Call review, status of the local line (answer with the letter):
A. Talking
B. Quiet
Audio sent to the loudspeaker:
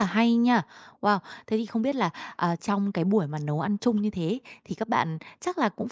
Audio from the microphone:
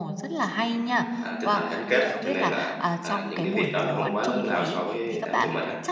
A